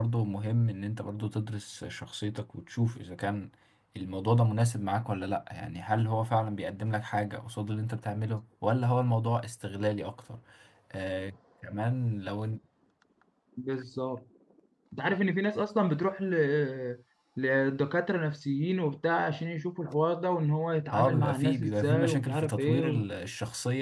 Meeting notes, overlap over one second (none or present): present